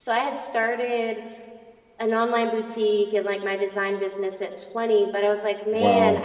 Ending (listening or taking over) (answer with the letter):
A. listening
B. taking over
A